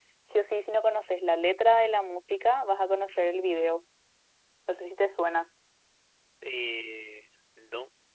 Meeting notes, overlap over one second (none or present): none